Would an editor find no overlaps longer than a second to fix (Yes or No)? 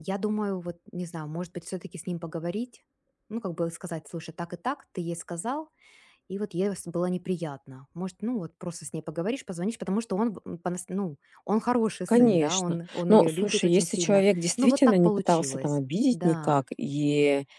No